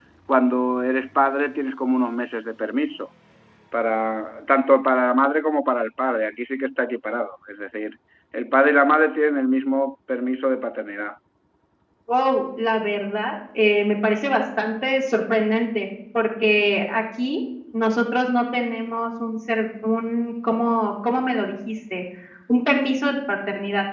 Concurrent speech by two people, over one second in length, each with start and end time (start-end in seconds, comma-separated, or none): none